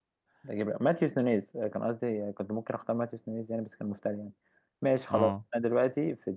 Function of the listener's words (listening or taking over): listening